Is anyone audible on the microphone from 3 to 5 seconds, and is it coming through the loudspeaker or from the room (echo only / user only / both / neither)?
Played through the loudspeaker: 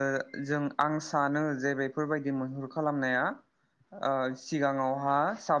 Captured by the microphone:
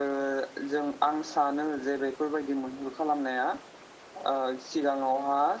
echo only